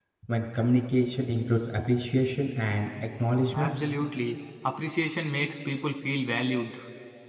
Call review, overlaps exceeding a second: none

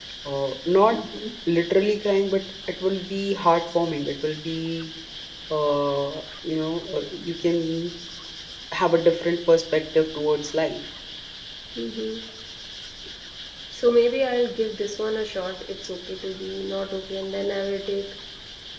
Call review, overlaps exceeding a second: none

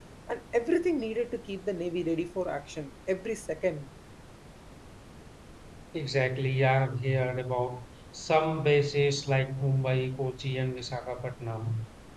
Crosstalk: none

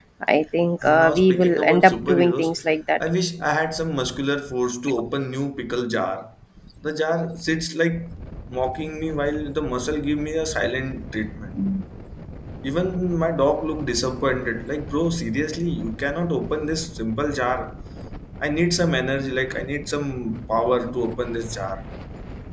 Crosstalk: present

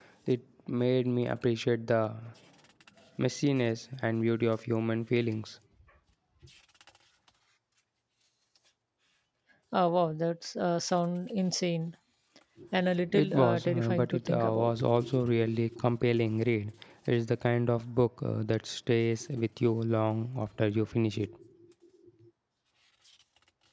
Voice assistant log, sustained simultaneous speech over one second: present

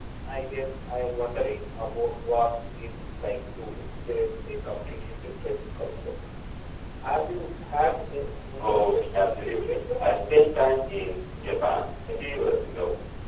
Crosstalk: present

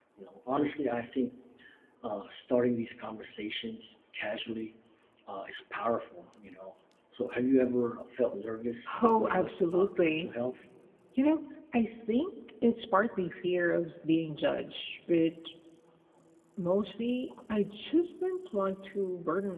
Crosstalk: present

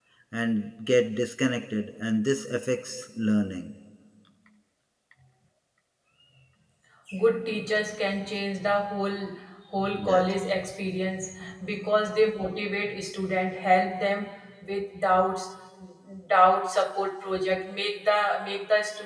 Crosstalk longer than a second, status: none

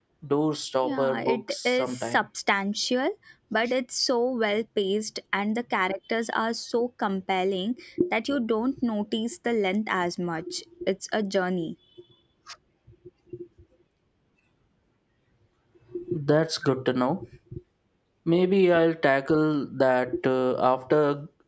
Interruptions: present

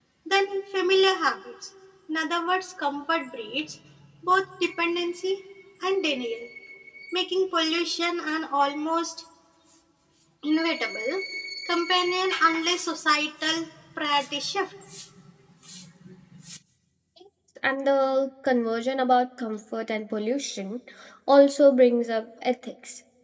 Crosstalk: none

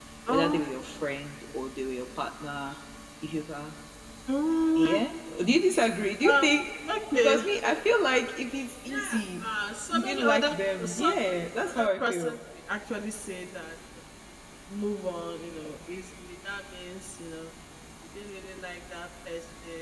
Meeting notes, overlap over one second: present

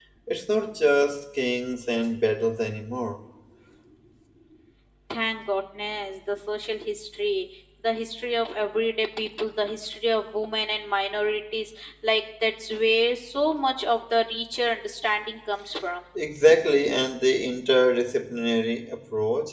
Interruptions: none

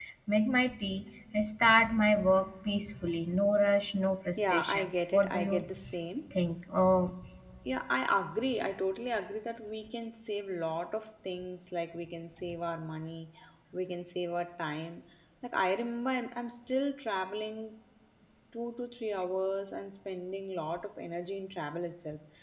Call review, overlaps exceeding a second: present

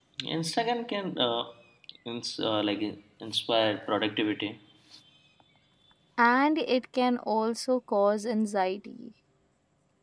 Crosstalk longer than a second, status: none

